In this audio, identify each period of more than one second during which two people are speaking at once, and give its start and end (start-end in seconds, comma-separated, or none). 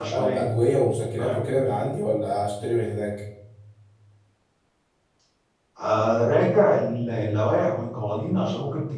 none